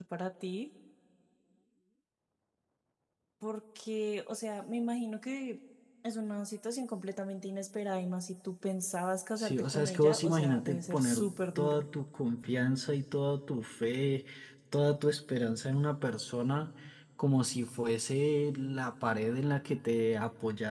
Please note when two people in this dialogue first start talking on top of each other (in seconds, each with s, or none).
9.4 s